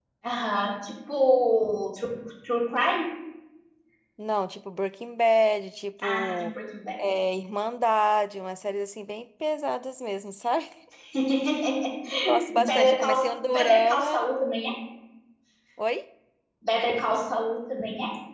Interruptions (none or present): present